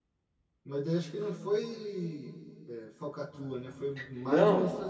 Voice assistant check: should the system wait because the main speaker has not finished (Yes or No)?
No